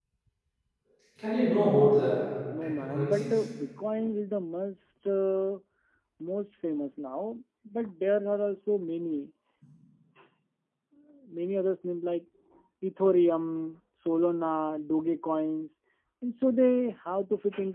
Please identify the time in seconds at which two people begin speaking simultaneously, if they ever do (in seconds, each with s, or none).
1.9 s